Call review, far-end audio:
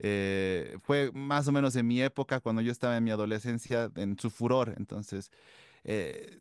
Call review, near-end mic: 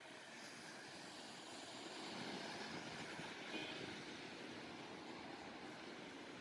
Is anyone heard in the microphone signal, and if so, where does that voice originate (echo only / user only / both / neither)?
neither